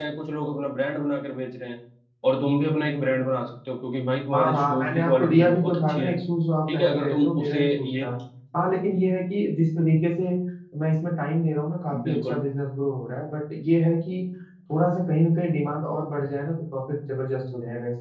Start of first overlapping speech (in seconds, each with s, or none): 4.3 s